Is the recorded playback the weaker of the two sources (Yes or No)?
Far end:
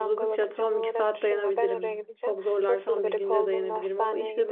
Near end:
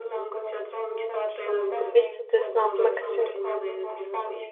Yes